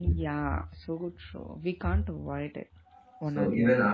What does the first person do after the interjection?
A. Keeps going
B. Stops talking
B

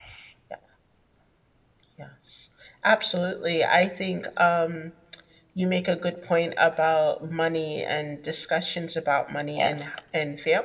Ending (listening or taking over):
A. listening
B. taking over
A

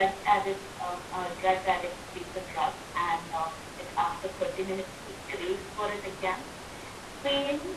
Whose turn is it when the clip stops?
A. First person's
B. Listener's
B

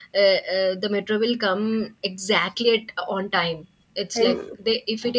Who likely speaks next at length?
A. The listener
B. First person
B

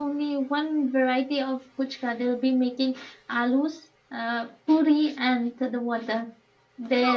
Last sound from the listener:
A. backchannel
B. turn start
B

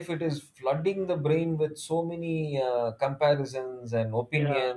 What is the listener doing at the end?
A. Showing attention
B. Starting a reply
A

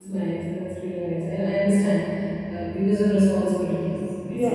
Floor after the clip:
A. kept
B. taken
B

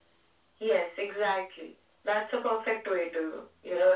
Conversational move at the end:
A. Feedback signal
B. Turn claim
B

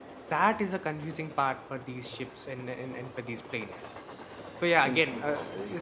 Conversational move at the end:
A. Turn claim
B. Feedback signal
B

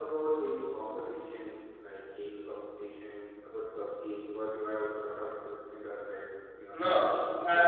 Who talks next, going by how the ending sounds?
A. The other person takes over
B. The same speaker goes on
A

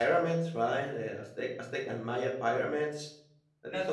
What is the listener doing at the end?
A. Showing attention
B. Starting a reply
B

